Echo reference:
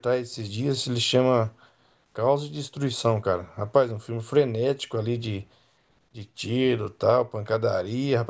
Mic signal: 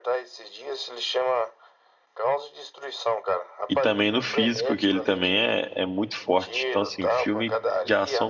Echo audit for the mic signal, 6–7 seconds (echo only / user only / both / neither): both